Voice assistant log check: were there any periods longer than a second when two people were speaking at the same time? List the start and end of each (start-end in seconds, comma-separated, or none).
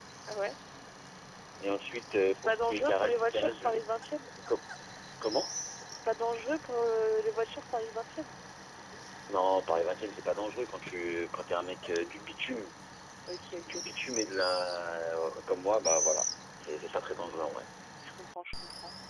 2.3-3.8